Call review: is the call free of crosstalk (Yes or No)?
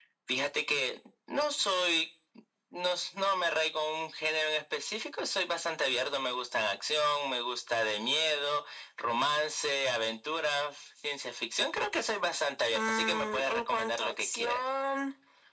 No